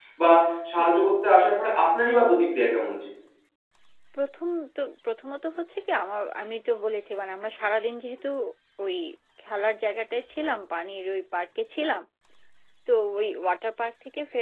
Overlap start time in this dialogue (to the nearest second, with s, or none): none